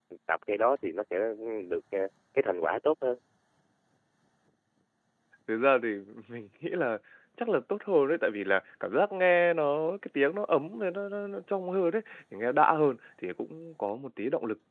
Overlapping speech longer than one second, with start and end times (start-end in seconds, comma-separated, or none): none